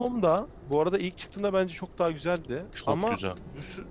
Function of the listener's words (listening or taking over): listening